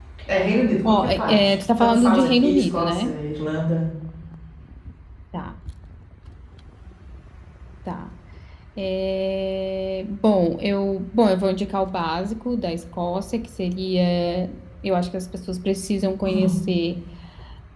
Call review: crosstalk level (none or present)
present